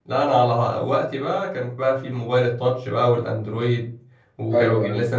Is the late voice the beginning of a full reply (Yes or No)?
No